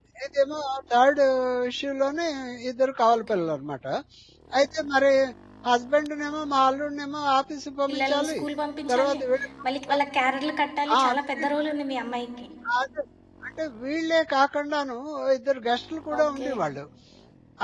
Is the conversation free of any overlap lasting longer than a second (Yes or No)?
Yes